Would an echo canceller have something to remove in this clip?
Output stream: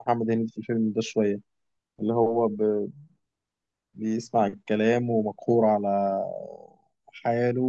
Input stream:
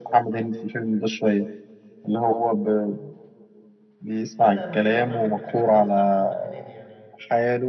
Yes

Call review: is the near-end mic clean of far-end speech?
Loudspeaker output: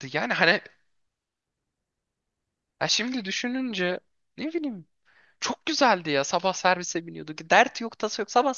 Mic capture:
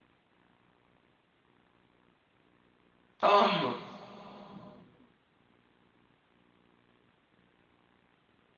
Yes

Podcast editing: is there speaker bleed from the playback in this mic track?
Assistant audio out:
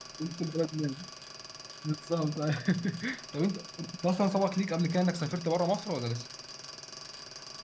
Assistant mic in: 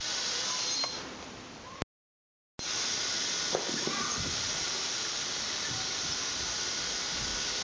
No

